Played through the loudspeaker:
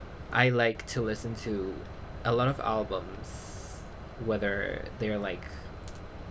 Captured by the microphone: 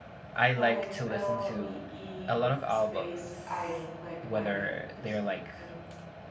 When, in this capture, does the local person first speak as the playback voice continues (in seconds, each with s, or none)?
0.5 s